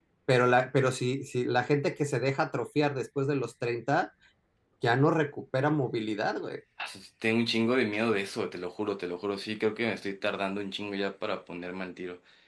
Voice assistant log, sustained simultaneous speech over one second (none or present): none